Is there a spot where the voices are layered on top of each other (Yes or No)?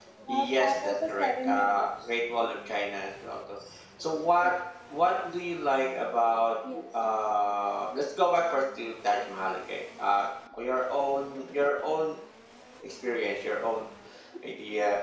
Yes